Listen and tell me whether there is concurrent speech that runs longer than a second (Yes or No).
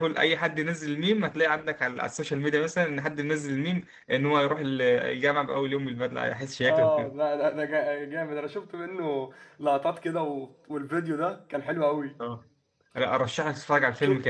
No